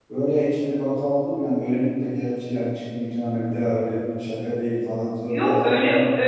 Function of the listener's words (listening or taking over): taking over